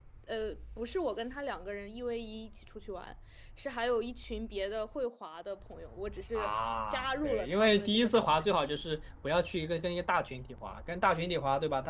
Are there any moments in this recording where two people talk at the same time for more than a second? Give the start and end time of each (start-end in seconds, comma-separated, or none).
6.9-8.8